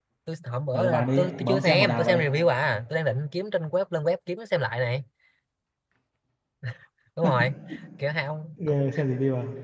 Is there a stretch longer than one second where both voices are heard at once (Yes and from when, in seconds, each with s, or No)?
Yes, from 0.7 s